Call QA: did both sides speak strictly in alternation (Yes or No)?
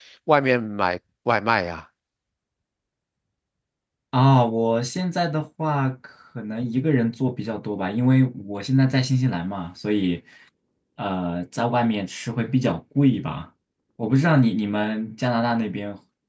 Yes